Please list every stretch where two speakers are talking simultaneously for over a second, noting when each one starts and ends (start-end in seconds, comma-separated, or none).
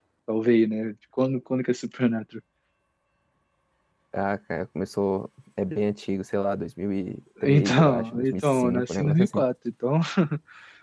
7.4-9.4